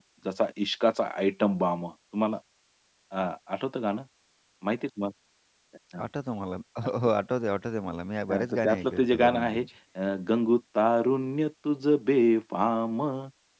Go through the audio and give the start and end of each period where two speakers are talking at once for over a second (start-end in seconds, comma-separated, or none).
8.3-9.7